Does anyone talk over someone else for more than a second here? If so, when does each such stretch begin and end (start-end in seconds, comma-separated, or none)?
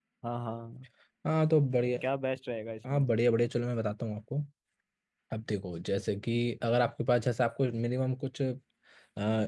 none